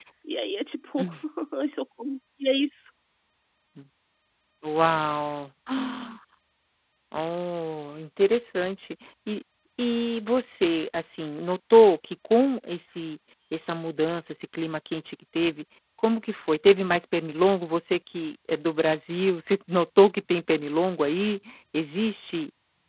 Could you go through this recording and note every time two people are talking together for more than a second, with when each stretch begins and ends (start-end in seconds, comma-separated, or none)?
none